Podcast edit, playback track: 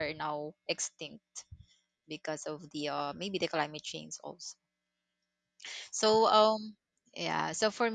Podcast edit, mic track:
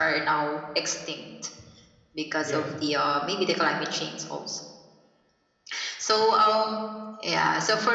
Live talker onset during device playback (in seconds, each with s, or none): 2.4 s